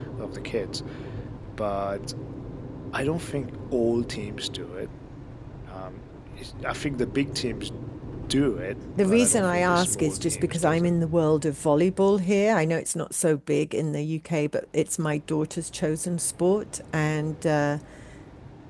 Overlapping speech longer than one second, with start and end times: 9.0-10.9

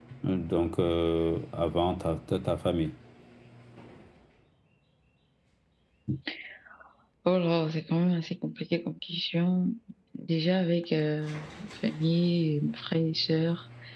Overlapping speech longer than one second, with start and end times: none

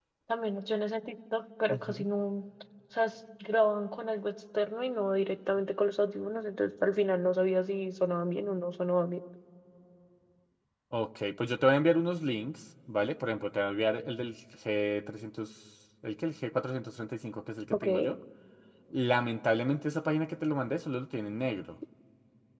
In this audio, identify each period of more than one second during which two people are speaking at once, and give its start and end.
none

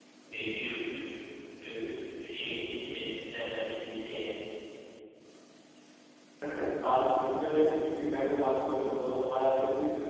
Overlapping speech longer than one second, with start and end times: none

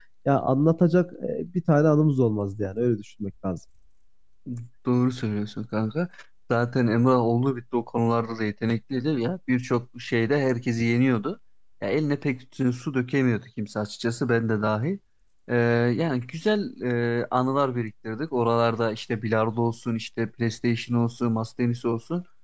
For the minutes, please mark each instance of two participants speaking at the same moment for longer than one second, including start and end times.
none

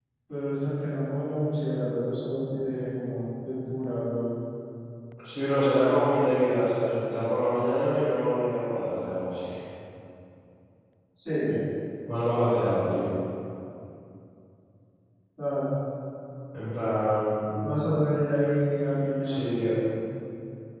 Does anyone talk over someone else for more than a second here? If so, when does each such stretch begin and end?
none

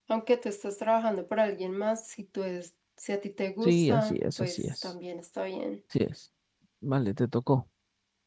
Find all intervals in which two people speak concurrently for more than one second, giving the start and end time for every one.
3.6-4.9

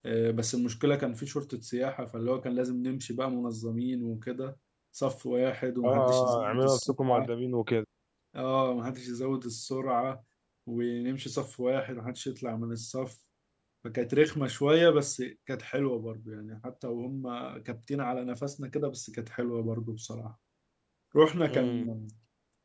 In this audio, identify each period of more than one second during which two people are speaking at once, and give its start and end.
5.8-7.3

